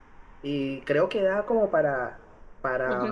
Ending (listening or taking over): listening